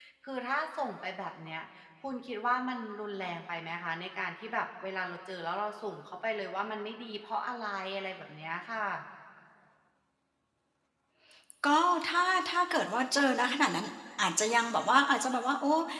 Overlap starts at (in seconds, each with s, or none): none